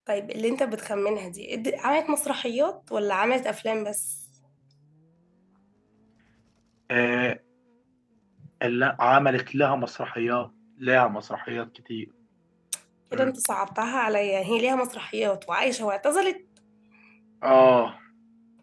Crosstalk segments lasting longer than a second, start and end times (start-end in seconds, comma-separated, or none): none